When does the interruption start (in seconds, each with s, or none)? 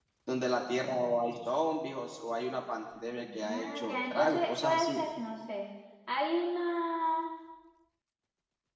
3.2 s